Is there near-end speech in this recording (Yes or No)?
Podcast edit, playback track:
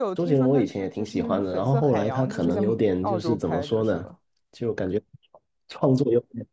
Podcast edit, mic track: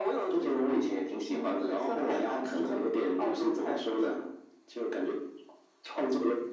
No